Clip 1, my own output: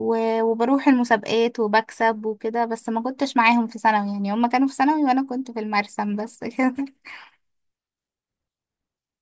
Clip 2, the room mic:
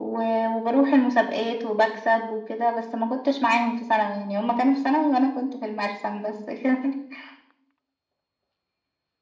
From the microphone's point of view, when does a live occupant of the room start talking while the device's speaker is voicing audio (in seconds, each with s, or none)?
none